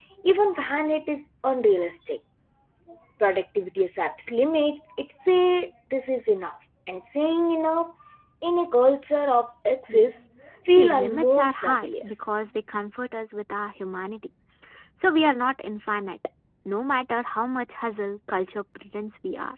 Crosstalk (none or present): present